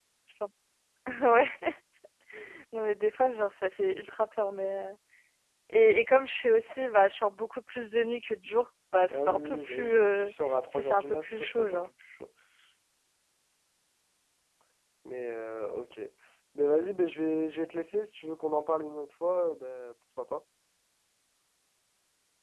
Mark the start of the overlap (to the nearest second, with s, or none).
9 s